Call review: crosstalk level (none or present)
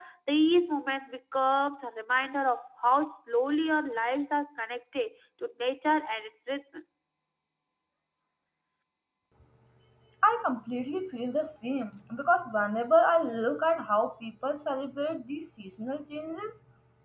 none